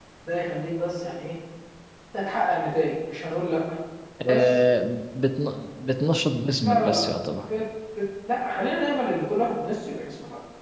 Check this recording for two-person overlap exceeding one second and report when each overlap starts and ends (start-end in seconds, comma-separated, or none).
none